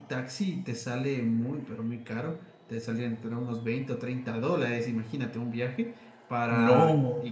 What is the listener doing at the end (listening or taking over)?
listening